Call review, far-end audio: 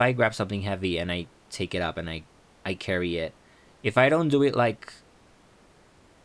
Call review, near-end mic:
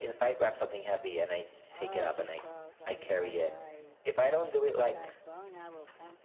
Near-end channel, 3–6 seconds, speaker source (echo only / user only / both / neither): both